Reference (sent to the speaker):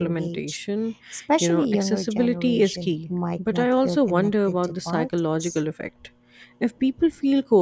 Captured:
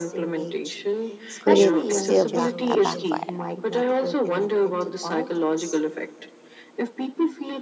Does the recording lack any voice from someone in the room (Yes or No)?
No